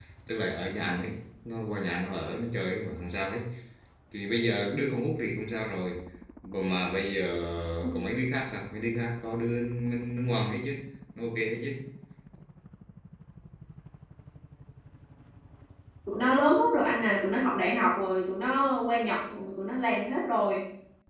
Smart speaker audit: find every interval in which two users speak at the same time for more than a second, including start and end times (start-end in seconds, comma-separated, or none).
none